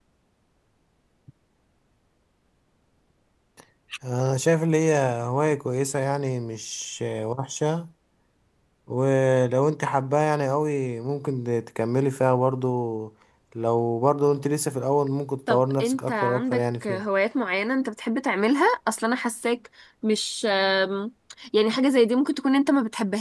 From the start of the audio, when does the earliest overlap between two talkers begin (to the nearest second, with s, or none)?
15 s